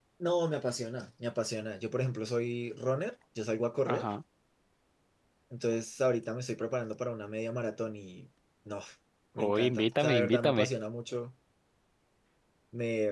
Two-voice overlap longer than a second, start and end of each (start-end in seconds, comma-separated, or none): 9.4-10.7